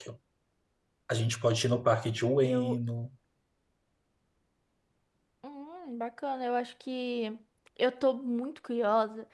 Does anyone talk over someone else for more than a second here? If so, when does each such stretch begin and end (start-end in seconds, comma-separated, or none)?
none